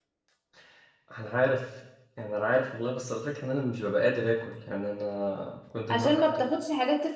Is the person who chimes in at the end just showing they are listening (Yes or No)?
No